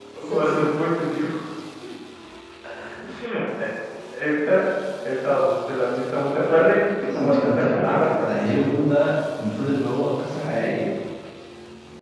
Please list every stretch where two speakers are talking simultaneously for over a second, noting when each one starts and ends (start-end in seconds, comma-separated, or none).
7.2-8.7